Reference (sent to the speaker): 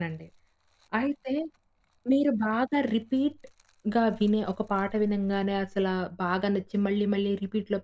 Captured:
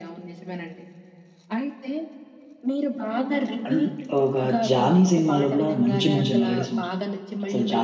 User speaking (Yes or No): Yes